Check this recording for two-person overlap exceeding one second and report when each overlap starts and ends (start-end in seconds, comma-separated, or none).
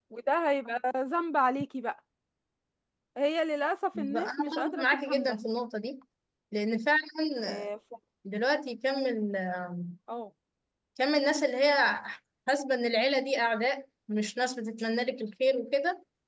4.0-5.4